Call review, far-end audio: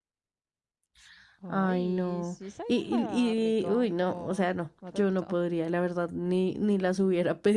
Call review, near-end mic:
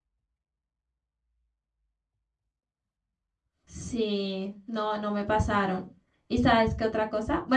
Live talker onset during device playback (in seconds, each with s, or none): 3.6 s